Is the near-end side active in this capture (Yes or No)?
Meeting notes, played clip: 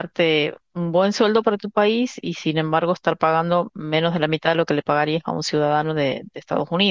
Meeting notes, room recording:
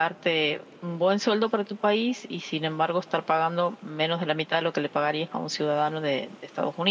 No